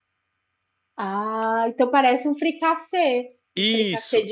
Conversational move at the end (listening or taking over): taking over